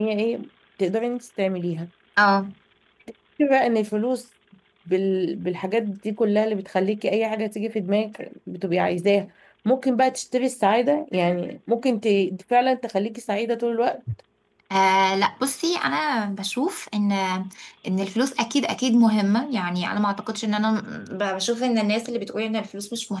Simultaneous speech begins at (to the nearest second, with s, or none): none